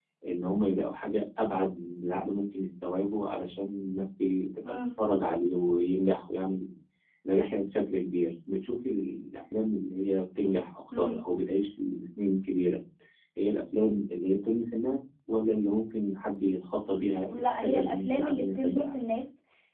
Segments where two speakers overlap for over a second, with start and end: 17.3-19.0

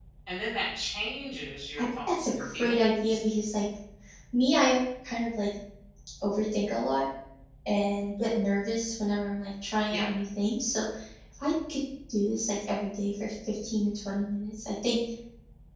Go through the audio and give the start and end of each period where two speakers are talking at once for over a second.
1.8-3.2

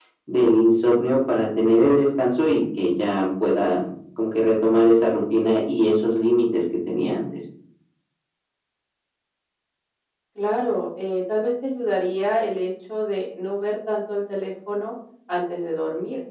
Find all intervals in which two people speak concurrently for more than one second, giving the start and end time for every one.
none

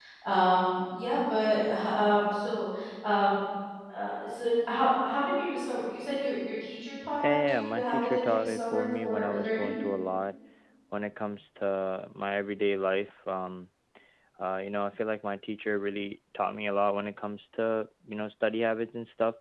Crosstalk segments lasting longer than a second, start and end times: 7.3-9.8

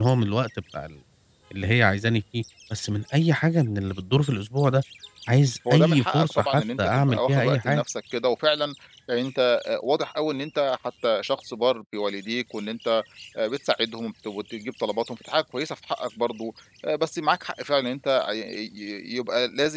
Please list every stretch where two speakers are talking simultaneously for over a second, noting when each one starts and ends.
5.7-7.8

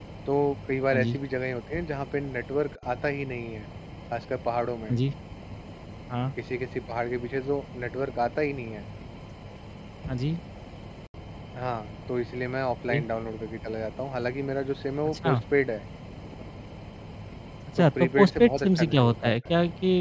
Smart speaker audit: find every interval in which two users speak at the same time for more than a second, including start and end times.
17.8-19.3

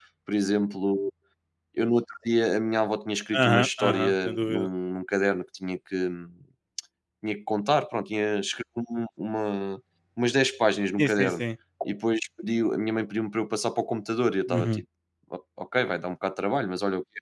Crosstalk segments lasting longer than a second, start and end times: 3.3-4.7

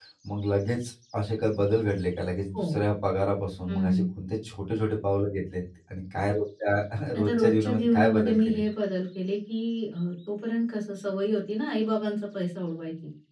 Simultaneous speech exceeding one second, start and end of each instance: 7.2-8.6

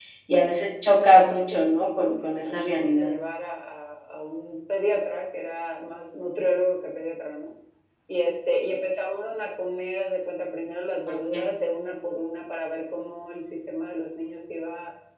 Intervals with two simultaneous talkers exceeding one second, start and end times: 0.9-3.1

